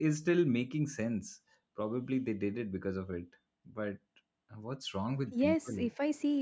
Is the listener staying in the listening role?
No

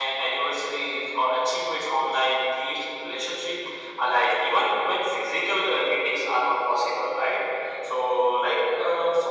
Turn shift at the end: No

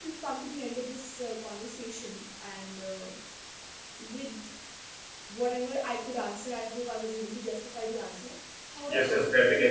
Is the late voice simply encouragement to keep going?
No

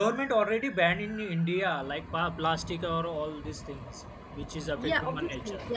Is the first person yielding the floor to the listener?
Yes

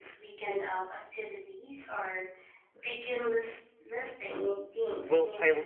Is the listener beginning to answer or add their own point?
Yes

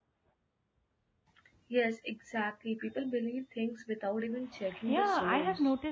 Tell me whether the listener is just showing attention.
No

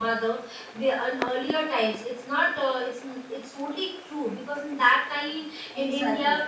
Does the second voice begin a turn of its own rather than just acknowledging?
No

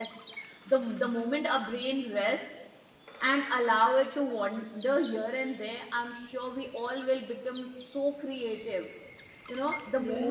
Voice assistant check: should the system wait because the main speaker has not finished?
Yes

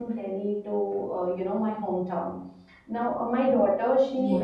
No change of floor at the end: Yes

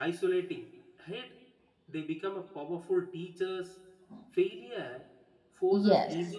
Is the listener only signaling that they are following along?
Yes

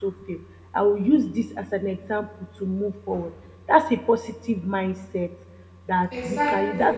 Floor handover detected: No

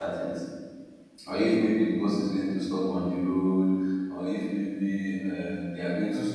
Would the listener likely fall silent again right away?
Yes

